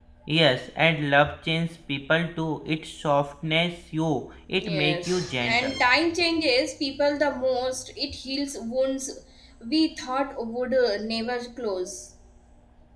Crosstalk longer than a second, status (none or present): present